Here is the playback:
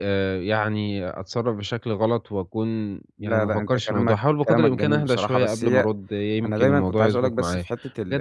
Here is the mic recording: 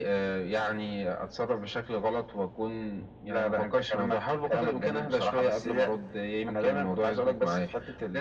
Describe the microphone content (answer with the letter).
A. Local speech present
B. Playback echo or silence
B